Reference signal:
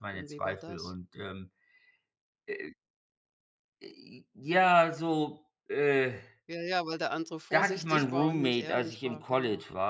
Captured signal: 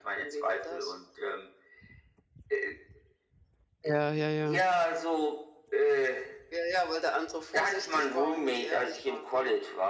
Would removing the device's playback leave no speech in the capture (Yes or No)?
No